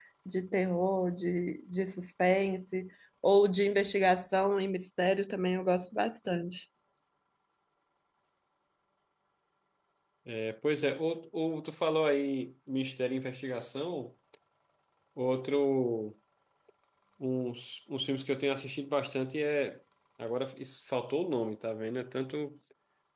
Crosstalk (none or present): none